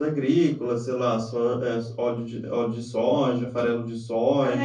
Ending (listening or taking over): taking over